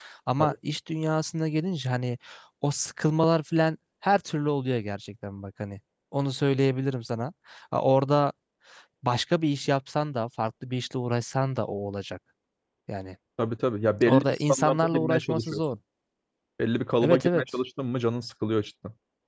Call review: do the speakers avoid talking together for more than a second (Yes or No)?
No